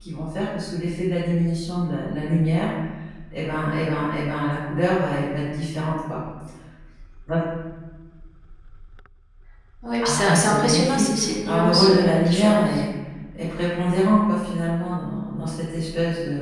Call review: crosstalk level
present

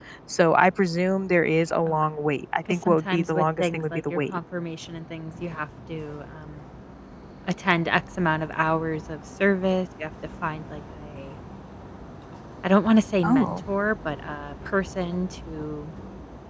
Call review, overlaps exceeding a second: present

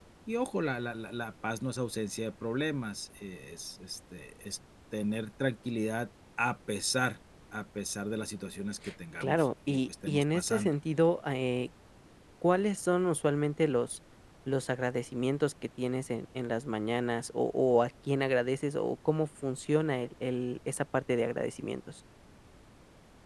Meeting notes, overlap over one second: present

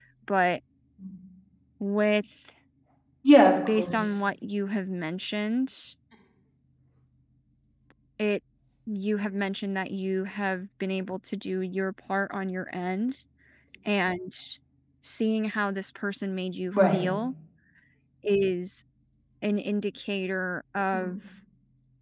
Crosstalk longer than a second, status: none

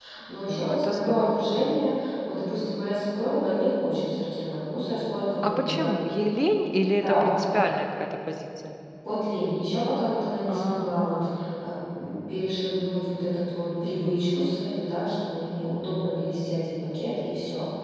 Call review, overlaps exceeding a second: present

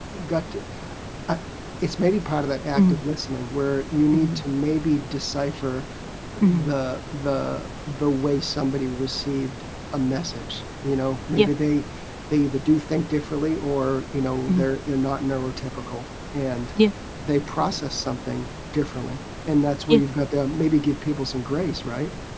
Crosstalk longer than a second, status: none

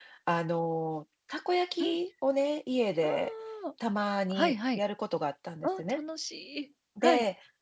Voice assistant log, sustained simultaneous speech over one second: none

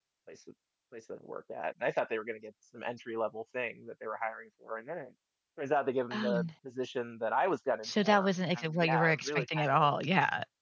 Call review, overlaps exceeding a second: present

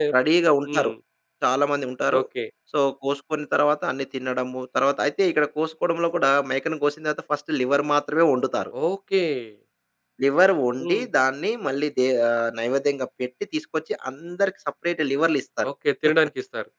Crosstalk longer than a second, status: none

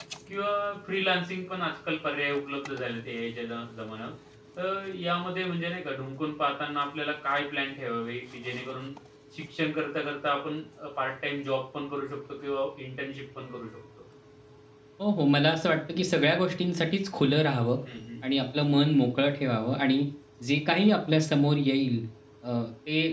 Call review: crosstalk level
none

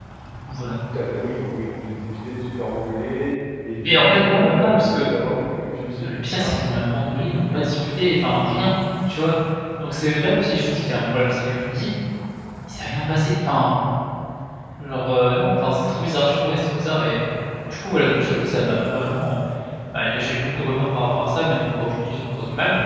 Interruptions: present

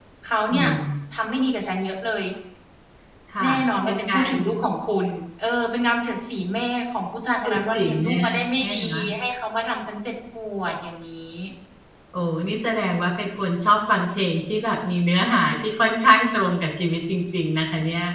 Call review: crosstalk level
present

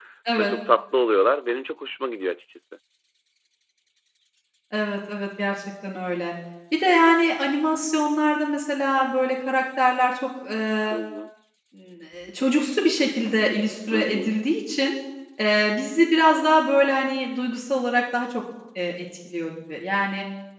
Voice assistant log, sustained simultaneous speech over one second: none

